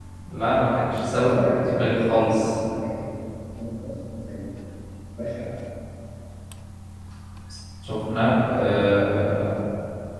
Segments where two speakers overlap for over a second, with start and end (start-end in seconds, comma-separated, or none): 0.9-2.5